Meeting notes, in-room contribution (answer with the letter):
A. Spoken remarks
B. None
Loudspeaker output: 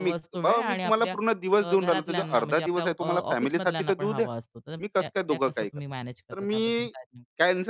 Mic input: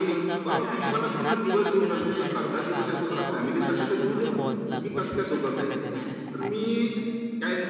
A